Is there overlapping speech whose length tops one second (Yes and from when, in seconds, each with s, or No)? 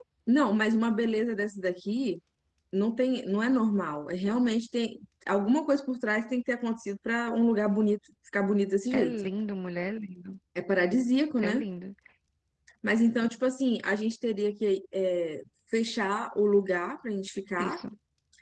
No